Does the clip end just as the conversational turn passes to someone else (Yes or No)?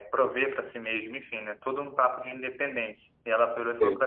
No